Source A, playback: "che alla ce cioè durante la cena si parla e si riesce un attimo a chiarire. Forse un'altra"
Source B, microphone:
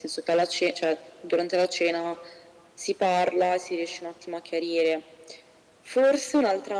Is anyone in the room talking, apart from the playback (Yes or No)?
No